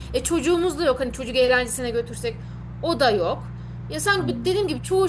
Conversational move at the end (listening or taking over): listening